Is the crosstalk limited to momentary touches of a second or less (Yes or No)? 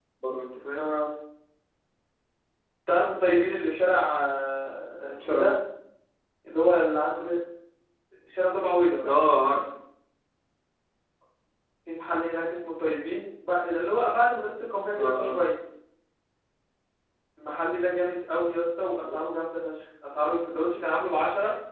Yes